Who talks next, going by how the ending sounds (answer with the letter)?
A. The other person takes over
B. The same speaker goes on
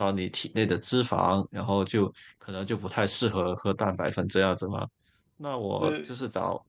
B